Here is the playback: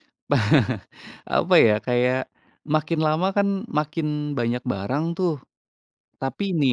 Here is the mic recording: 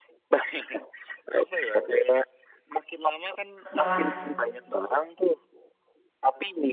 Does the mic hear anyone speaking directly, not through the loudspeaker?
Yes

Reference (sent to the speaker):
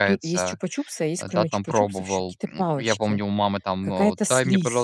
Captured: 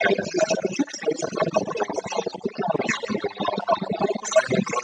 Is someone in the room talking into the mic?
No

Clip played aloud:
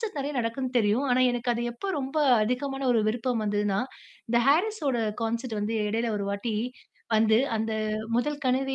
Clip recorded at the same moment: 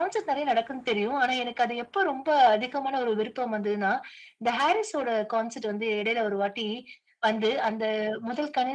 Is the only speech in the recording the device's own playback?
Yes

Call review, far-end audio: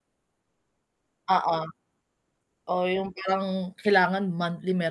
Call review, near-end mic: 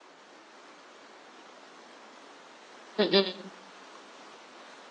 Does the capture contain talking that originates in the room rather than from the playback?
Yes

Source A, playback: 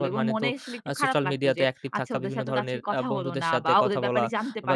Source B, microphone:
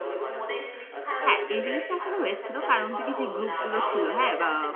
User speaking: Yes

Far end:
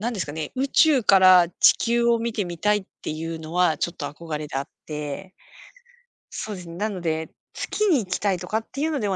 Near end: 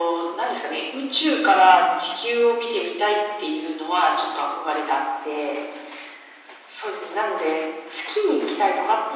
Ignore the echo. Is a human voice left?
No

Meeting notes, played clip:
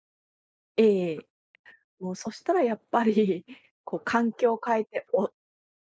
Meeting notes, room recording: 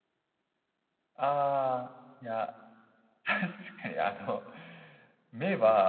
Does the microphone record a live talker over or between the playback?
Yes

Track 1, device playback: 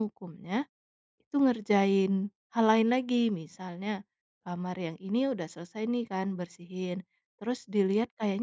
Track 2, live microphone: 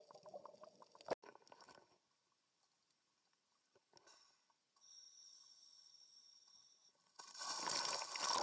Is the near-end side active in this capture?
No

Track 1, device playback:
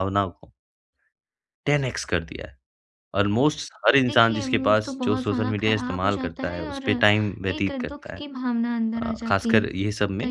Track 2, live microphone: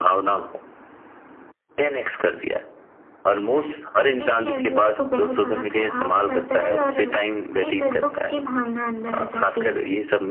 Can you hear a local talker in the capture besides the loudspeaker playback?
No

